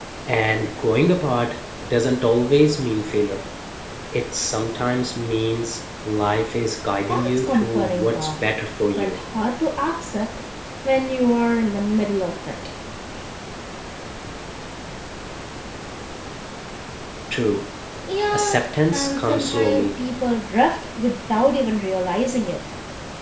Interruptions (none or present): present